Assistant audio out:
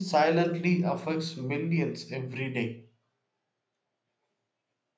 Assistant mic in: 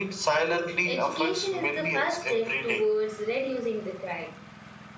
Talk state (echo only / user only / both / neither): both